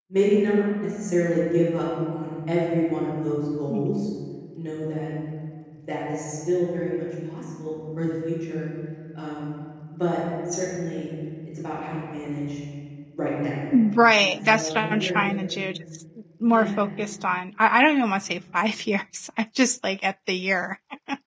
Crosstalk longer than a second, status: present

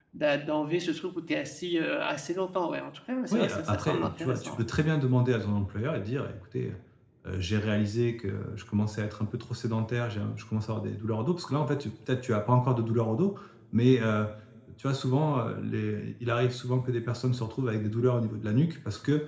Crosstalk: present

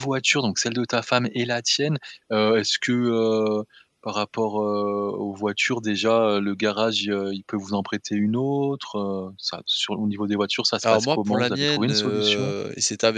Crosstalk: present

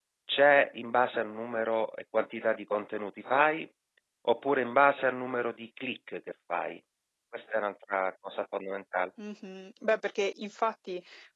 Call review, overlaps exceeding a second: none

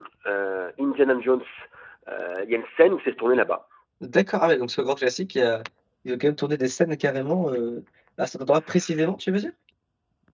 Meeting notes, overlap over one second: none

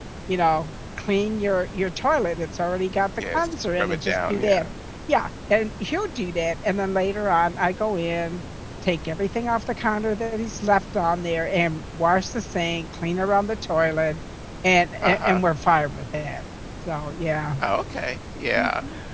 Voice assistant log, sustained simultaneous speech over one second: present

